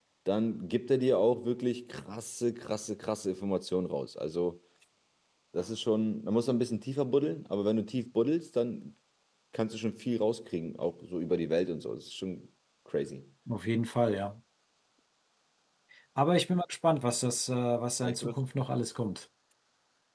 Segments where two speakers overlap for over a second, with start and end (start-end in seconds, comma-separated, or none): none